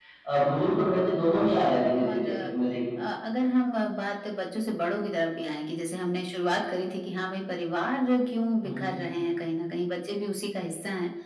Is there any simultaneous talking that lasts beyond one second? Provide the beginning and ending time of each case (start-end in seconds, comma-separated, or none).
1.1-2.5